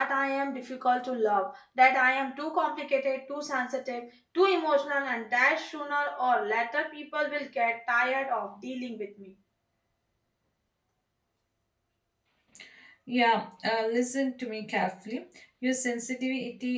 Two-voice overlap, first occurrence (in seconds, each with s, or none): none